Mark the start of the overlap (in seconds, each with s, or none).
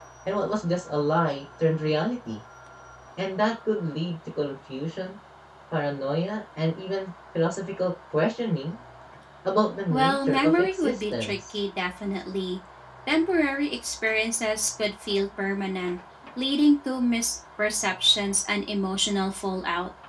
9.9 s